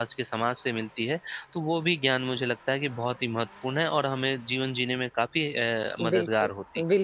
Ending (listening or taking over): taking over